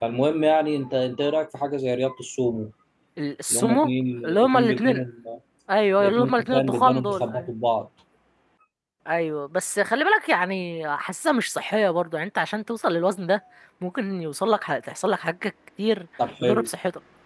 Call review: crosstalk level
present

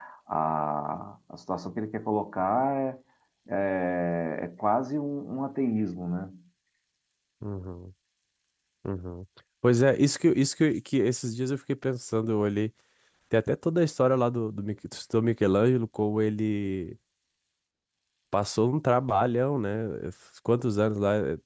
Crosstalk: none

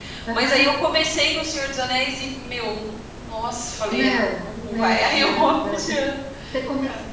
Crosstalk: present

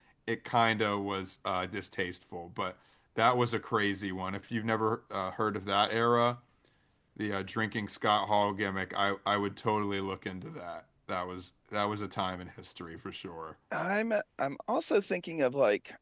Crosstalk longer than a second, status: none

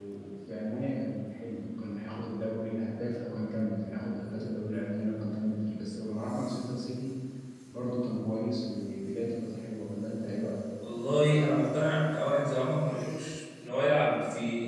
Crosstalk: none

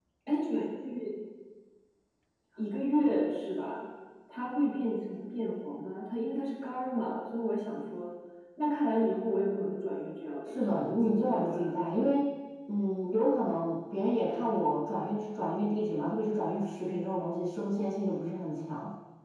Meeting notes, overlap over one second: present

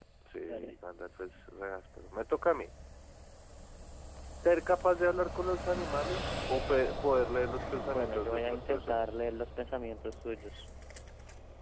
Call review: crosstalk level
present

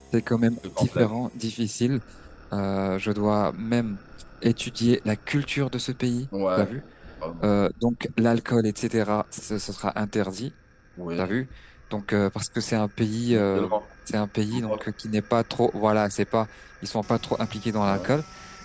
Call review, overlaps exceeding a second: none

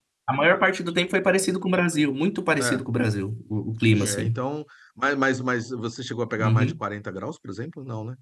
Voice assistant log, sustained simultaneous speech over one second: none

